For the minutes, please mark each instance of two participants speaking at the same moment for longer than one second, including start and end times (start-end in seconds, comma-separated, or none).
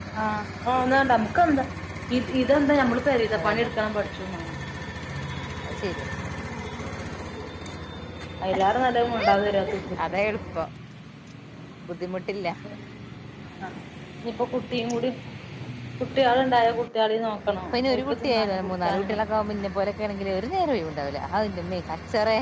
17.7-19.1